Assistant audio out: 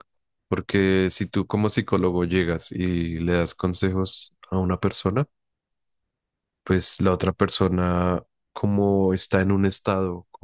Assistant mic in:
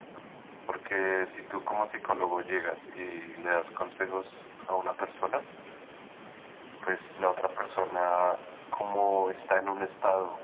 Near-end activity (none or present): none